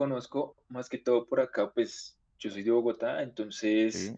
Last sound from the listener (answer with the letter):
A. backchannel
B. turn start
A